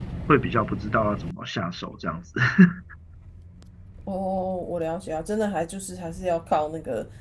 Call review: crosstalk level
none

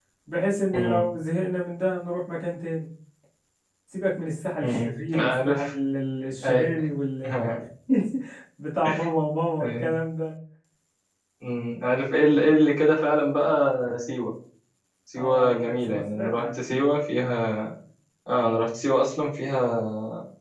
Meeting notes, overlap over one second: present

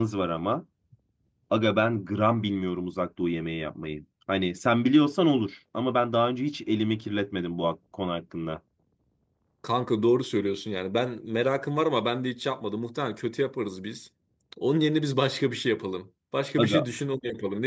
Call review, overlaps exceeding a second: none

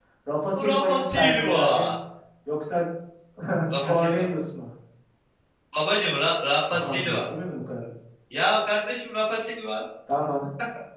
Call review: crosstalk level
present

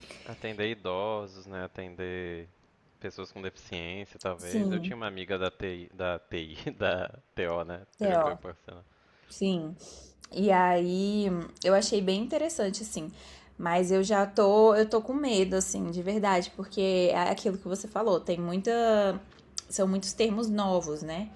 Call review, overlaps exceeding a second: none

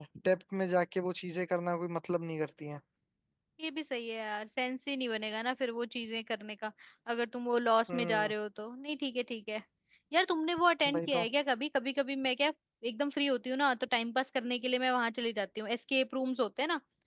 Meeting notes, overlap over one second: none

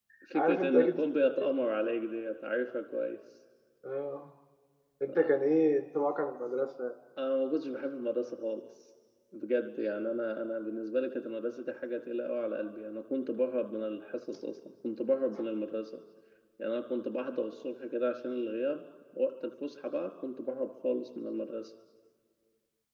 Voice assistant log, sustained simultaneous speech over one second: present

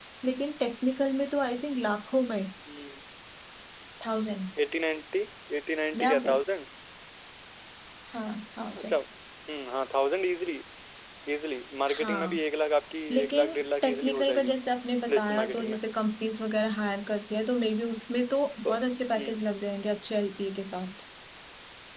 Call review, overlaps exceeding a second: present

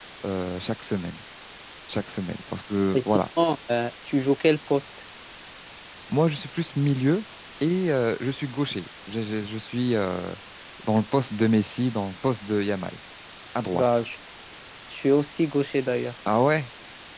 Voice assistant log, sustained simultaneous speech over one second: none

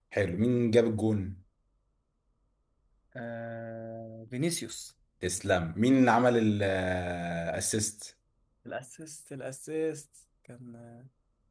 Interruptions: none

